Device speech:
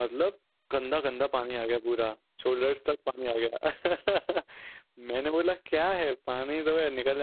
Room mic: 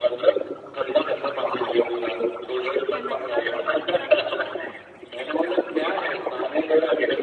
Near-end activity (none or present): present